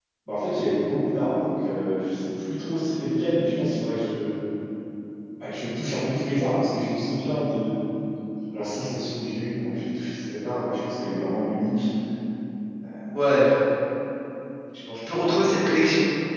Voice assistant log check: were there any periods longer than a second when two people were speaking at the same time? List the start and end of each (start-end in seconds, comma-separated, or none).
none